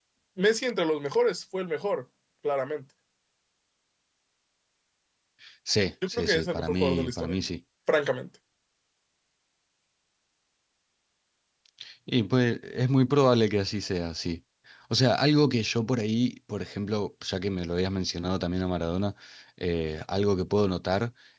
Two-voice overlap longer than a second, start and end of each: 6.1-7.3

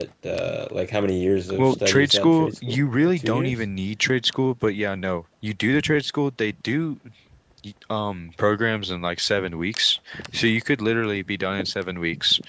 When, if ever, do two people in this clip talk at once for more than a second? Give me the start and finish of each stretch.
1.6-3.5

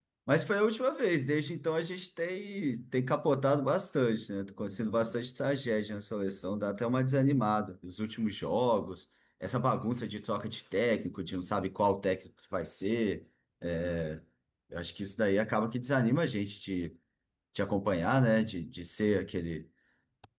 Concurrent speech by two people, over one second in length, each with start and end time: none

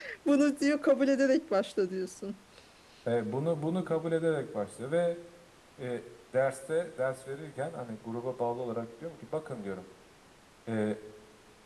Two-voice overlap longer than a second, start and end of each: none

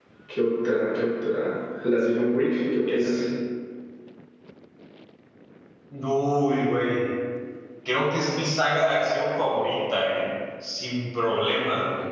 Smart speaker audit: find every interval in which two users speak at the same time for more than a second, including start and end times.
none

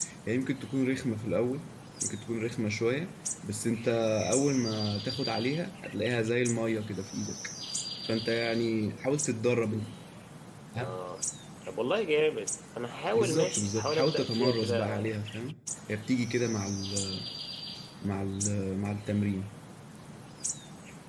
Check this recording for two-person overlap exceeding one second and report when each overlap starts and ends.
13.2-14.9

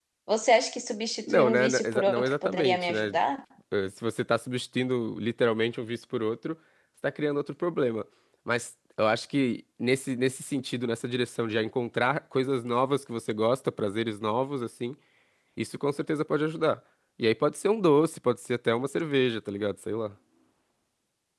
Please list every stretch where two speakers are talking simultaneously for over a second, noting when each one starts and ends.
1.3-3.2

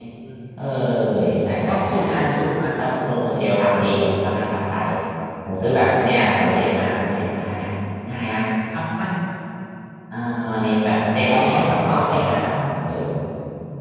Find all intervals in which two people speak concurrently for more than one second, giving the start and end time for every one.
11.3-12.5

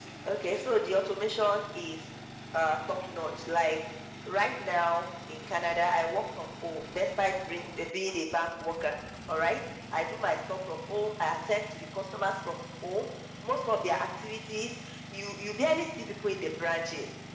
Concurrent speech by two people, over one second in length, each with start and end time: none

